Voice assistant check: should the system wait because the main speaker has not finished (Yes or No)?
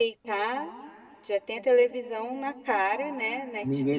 No